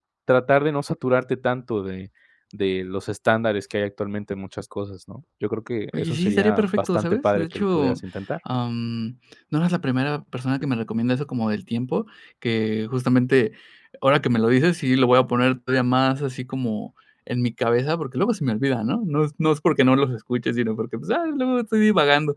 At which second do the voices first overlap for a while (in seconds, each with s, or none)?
5.9 s